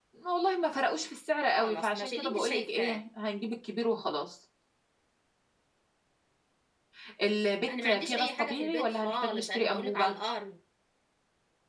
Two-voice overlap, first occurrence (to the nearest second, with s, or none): 1 s